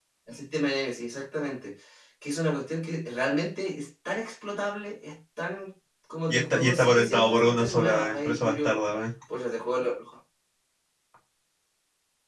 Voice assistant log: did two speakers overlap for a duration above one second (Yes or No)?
Yes